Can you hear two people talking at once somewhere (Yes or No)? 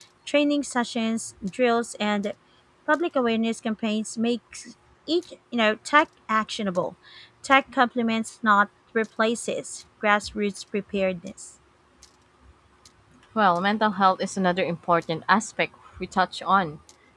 No